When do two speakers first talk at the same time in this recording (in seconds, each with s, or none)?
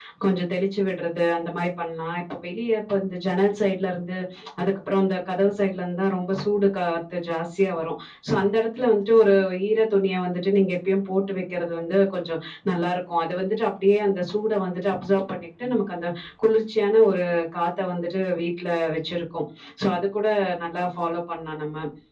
none